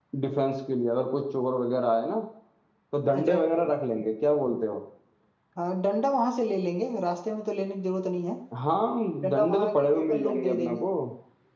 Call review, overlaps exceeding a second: present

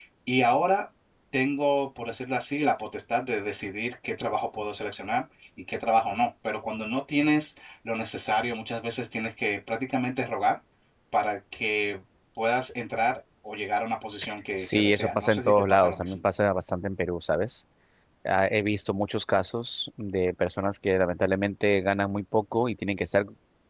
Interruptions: present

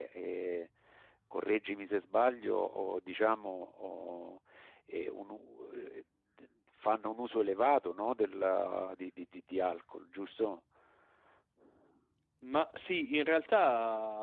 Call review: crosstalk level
none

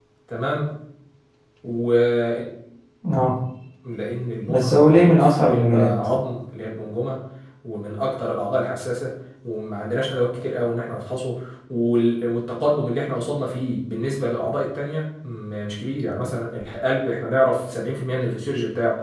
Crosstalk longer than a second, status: present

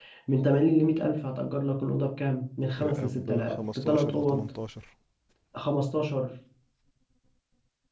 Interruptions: present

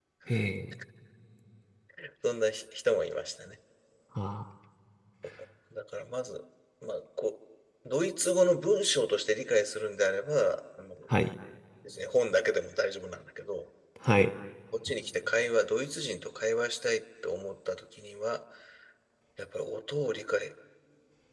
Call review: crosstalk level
none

